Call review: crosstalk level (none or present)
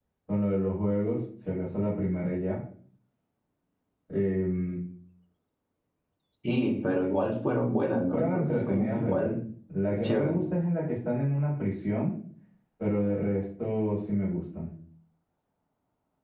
present